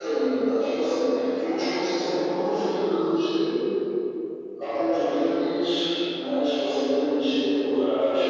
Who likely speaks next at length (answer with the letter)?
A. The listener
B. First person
B